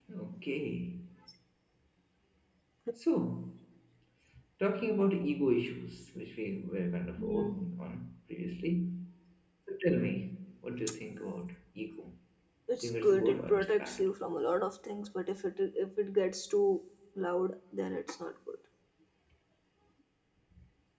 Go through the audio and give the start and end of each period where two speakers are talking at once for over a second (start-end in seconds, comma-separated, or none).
12.8-14.1